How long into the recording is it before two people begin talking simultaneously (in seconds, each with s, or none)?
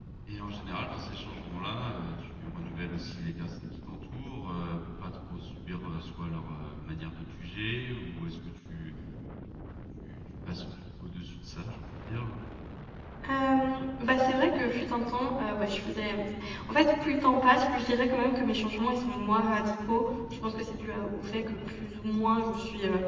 none